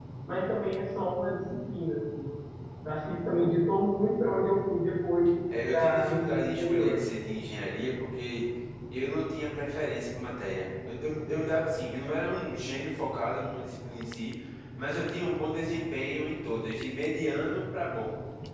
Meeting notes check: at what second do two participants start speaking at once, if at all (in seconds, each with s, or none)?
5.5 s